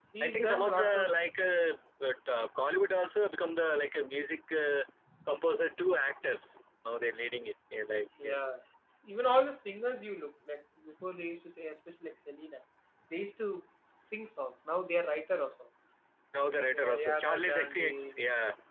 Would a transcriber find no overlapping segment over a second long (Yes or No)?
No